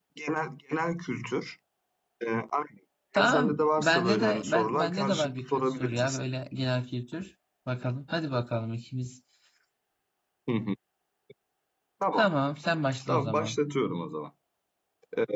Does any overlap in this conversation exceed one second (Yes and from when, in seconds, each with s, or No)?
Yes, from 3.1 s